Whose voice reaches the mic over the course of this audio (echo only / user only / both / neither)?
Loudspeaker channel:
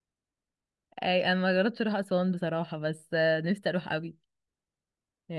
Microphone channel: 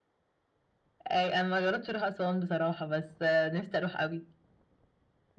echo only